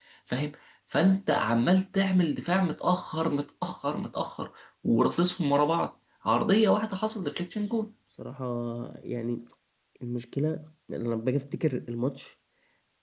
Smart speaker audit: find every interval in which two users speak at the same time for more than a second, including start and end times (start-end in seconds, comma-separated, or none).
none